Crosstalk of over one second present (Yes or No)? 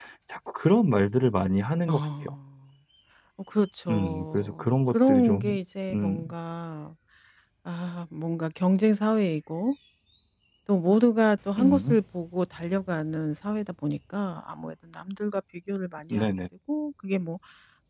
Yes